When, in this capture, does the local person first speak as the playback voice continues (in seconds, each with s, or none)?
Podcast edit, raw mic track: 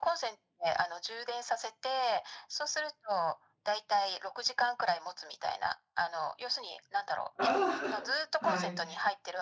7.3 s